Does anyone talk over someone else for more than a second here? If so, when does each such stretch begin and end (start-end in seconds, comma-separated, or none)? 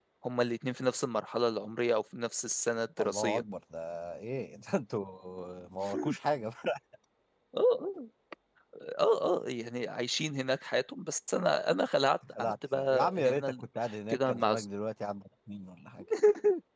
12.3-13.7